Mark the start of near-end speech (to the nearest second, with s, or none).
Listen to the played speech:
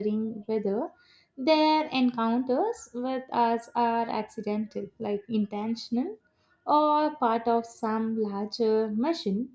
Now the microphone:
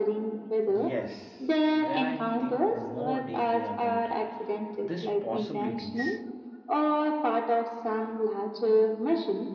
1 s